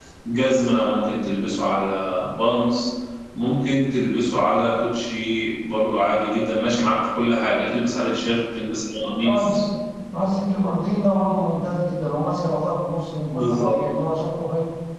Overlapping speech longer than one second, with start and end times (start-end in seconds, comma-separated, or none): none